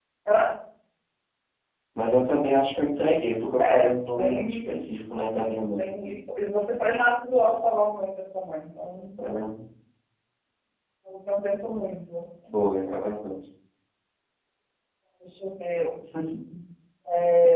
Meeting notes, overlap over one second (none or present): present